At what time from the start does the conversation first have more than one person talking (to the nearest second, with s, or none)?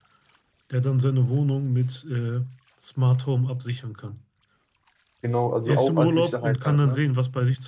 6 s